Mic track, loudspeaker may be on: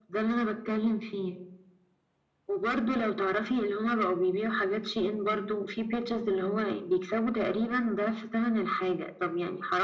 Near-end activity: none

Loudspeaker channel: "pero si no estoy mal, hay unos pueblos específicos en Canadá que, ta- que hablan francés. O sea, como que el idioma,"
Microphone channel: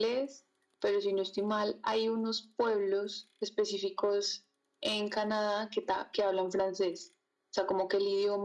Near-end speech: none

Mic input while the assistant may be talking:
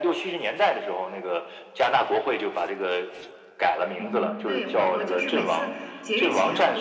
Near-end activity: present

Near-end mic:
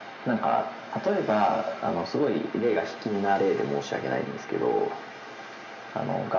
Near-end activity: none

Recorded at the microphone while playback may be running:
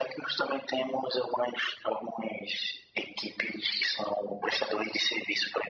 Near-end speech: none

